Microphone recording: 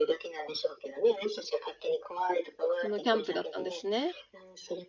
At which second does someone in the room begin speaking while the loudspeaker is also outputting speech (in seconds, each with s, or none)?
2.8 s